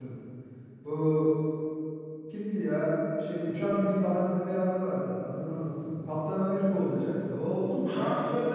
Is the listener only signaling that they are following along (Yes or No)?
No